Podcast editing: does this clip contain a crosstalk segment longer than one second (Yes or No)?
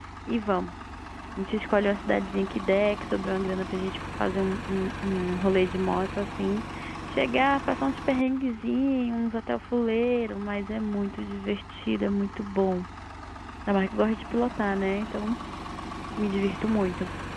No